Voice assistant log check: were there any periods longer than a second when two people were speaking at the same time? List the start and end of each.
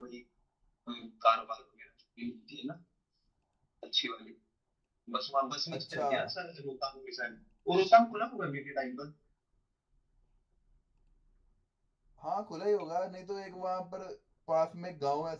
none

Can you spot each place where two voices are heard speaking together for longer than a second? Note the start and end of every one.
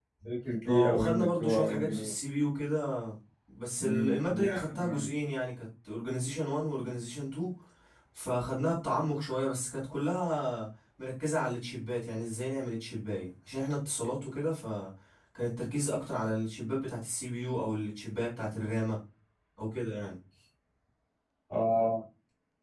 0.7-2.1, 3.8-5.0

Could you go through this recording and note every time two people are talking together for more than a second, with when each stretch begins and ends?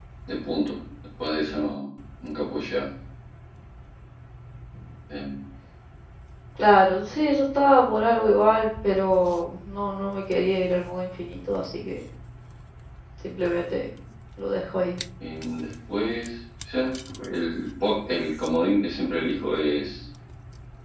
none

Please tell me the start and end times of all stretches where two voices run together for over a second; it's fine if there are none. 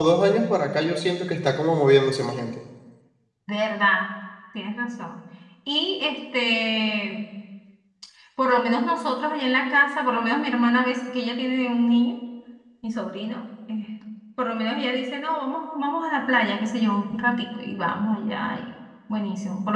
none

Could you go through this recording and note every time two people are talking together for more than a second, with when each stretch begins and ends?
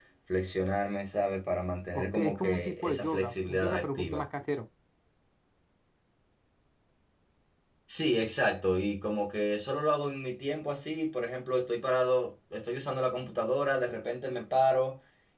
1.9-4.3

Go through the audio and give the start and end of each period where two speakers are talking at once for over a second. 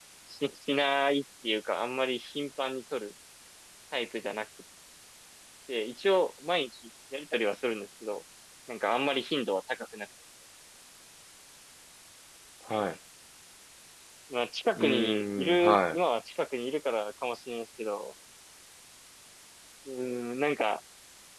14.8-16.0

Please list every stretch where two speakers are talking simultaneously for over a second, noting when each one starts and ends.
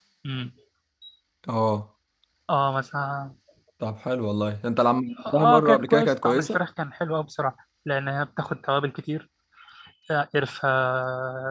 5.2-6.6

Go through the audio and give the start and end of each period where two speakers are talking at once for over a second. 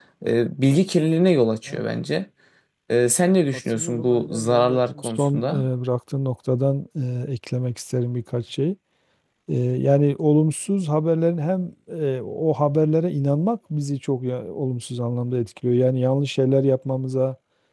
3.5-5.7

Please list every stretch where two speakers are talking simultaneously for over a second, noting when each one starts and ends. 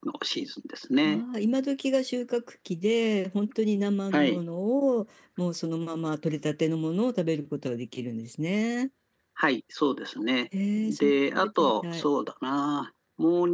10.8-12.0

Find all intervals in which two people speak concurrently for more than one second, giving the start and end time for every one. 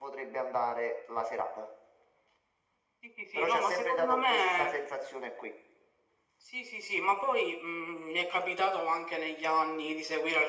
3.4-4.7

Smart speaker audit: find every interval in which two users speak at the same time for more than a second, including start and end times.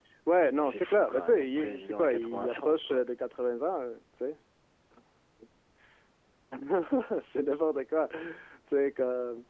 0.6-3.0

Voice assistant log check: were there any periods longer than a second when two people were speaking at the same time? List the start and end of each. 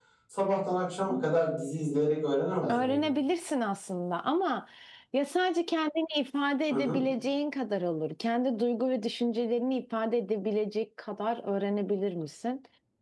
none

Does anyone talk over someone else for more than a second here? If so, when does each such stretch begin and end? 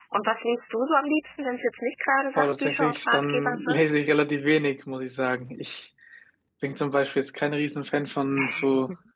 2.4-3.9

